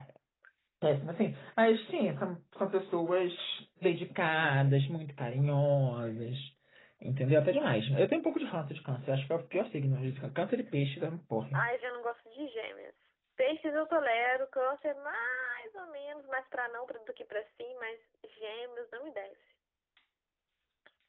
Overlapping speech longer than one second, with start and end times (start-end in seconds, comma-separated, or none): none